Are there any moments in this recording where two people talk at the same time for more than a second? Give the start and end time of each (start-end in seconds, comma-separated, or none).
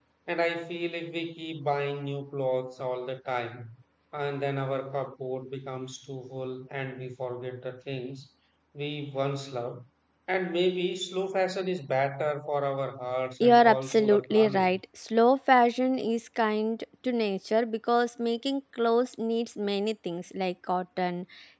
13.4-14.7